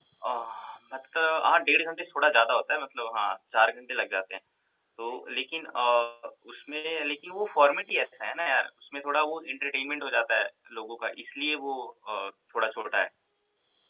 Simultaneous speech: No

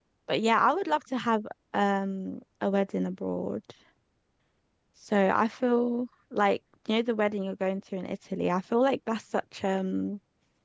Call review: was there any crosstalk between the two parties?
No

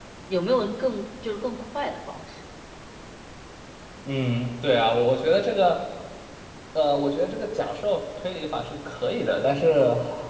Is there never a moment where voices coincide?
Yes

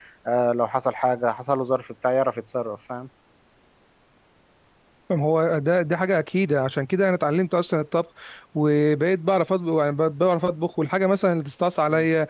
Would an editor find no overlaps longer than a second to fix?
Yes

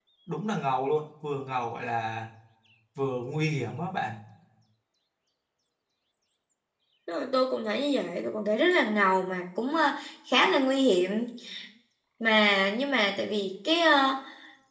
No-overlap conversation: Yes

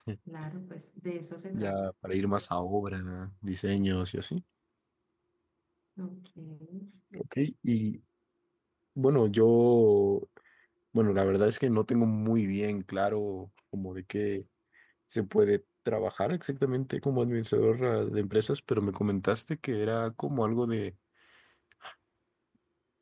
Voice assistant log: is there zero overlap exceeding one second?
Yes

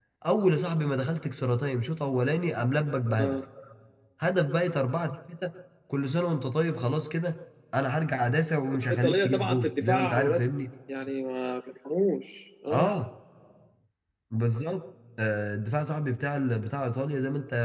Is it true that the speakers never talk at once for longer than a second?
No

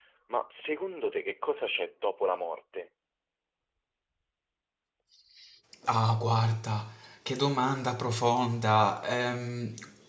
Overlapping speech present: No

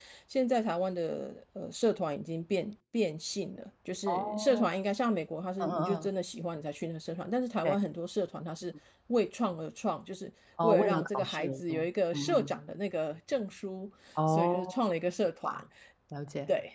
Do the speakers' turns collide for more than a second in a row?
Yes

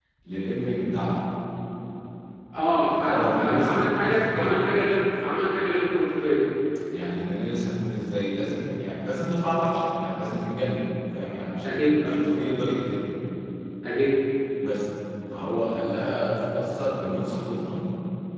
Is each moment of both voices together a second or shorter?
No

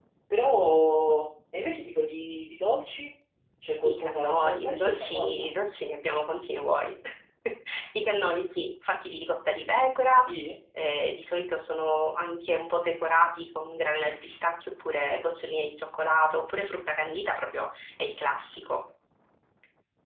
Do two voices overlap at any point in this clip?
Yes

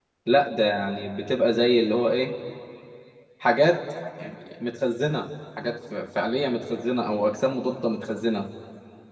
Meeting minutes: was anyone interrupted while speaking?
No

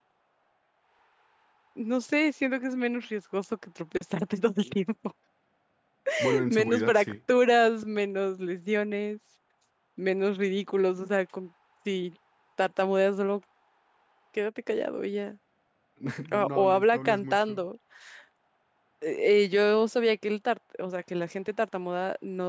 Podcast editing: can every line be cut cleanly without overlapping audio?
No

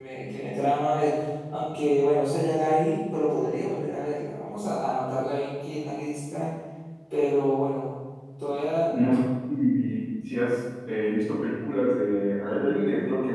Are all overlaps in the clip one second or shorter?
Yes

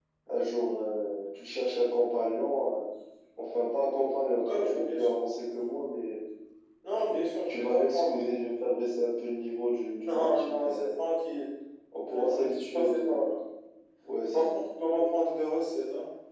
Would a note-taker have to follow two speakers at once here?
Yes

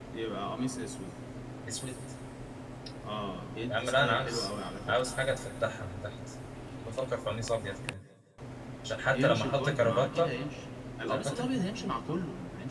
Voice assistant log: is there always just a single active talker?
No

